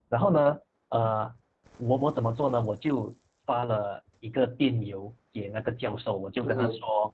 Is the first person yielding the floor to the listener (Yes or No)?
No